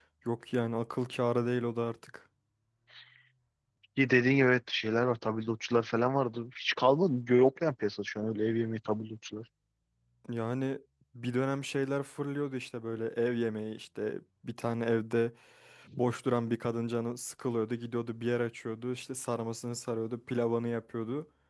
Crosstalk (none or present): none